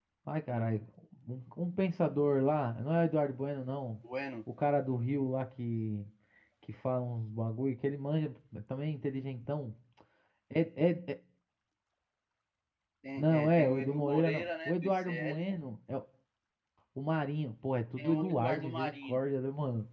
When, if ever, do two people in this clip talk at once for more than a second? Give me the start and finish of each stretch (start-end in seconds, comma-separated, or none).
13.2-15.5, 18.0-19.2